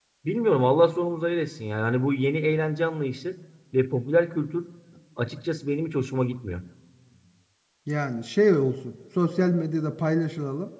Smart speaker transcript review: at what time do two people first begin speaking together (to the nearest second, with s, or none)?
none